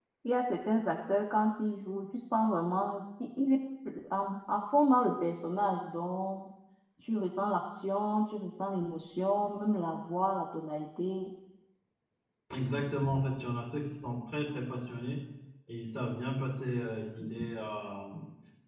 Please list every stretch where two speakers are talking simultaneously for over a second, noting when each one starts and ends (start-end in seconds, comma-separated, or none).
none